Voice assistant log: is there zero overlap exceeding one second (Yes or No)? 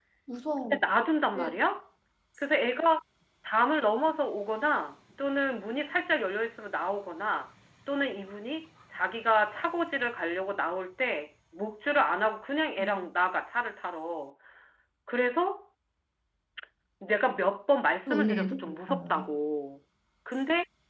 No